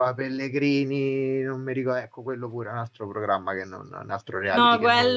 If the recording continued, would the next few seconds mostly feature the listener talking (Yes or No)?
Yes